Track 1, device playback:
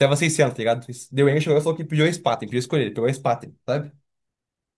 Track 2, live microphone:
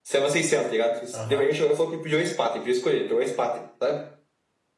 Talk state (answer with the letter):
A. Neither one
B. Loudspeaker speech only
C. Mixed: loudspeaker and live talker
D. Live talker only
C